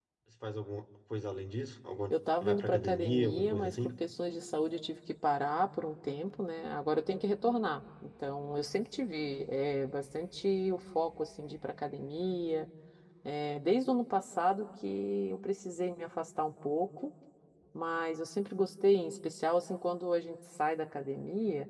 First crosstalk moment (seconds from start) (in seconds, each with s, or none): 2.1 s